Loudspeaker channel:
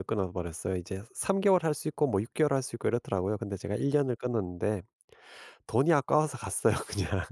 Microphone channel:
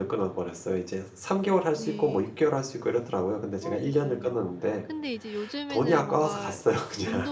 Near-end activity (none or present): present